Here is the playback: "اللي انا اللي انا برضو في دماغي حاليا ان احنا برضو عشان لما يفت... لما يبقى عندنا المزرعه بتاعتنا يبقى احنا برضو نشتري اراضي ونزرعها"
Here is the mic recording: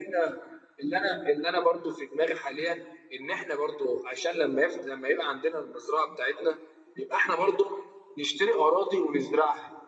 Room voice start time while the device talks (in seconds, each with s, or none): none